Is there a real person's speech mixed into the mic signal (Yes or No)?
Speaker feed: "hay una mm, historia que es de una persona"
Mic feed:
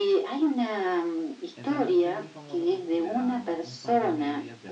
Yes